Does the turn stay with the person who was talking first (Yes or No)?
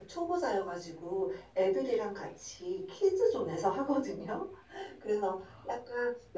Yes